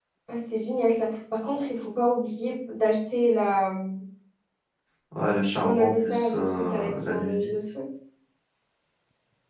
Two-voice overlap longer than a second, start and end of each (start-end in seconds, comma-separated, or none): 5.6-7.5